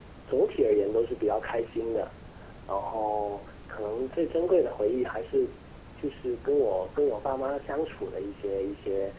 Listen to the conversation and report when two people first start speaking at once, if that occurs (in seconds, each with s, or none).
none